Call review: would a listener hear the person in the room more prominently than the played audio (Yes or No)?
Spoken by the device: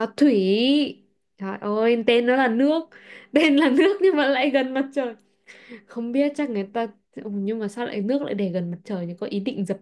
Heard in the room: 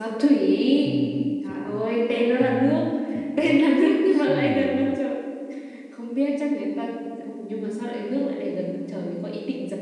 No